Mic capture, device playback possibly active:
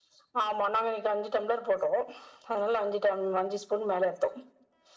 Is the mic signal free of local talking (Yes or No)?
Yes